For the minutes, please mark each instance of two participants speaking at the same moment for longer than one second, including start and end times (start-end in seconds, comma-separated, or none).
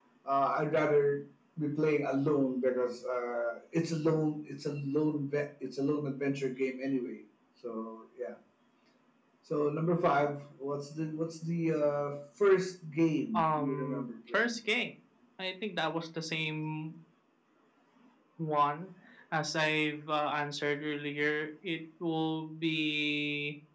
13.3-14.6